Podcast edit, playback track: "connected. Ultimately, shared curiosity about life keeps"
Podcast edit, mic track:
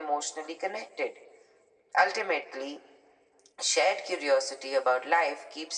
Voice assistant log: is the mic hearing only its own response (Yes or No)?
Yes